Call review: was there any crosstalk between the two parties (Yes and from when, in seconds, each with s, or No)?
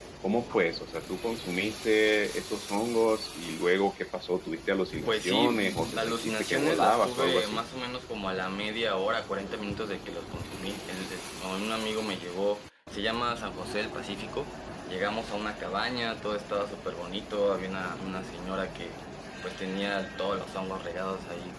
Yes, from 5.0 s